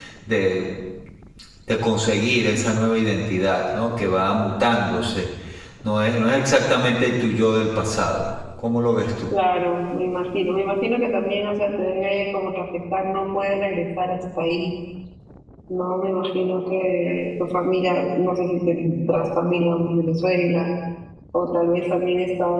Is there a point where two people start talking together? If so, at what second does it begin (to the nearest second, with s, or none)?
none